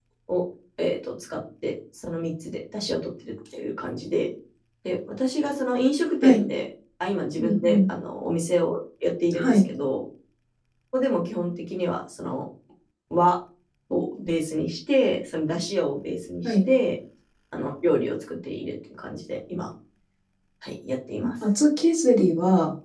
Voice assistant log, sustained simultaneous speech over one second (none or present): none